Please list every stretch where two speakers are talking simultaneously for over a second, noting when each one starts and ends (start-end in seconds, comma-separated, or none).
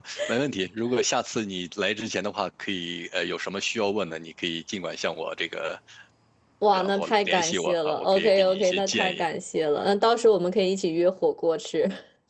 6.7-9.3